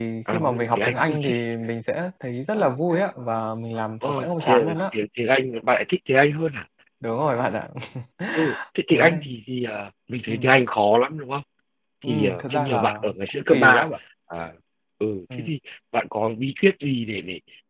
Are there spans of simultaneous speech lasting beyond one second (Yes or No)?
Yes